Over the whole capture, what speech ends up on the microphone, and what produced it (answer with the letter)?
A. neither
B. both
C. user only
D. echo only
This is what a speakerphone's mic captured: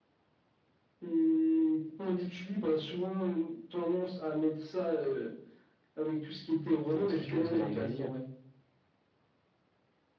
B